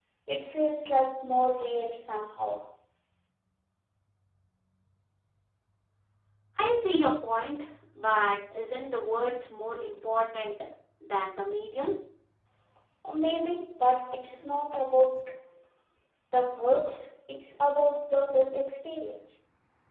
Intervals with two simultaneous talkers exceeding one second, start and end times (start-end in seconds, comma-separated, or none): none